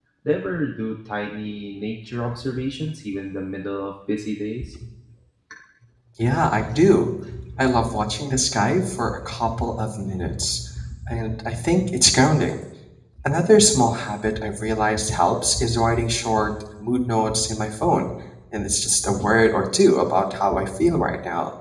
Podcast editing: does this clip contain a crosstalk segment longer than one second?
No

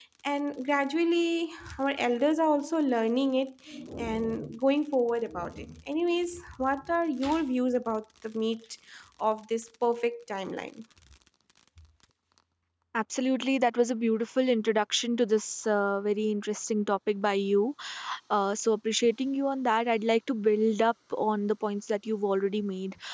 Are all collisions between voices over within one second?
Yes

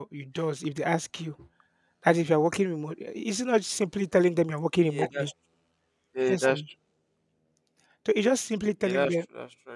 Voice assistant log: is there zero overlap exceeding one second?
Yes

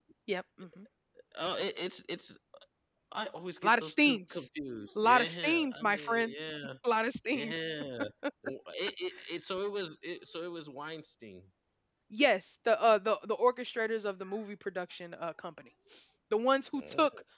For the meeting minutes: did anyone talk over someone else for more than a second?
Yes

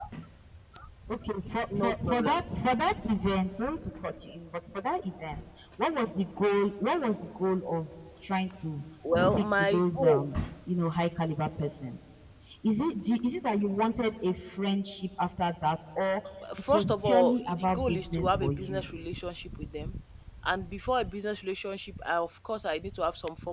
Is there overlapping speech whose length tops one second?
Yes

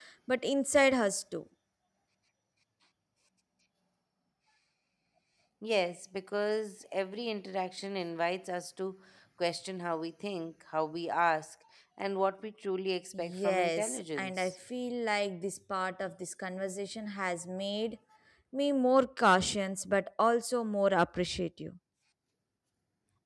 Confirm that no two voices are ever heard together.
No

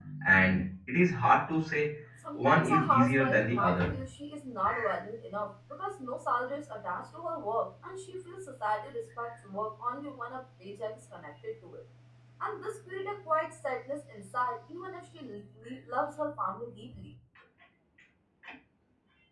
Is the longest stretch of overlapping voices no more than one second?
No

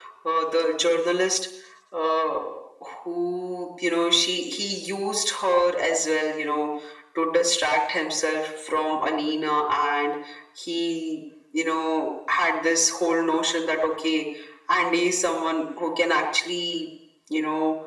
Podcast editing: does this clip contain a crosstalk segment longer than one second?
No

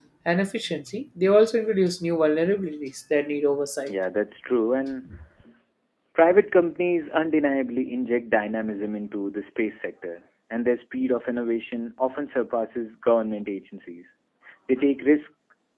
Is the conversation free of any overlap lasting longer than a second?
Yes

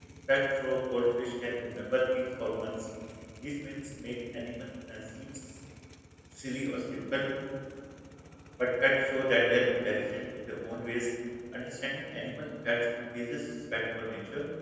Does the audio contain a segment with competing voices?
No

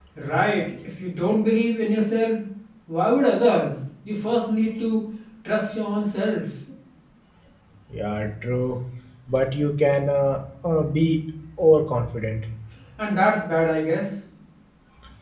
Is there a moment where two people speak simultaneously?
No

